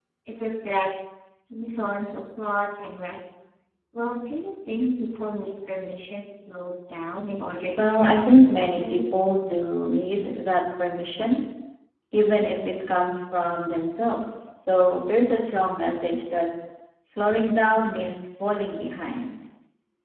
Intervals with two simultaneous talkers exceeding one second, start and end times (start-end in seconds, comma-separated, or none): 7.8-9.0